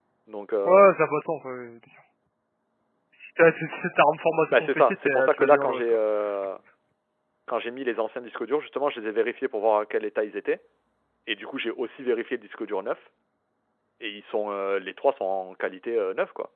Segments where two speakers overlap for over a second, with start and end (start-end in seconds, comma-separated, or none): 4.5-6.0